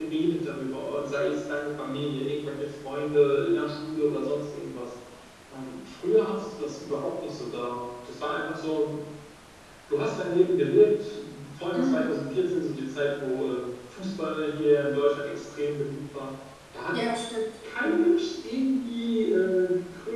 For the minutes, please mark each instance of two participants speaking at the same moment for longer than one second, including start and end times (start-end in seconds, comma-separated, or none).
none